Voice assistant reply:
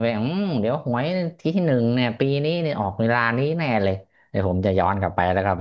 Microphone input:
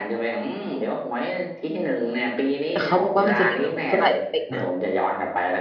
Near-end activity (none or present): present